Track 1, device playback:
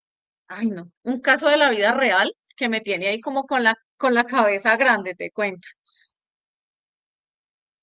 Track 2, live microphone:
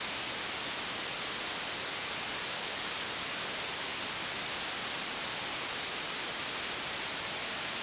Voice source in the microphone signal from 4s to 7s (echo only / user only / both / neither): neither